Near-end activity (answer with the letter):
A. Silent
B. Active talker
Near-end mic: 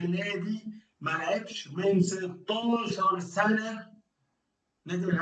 A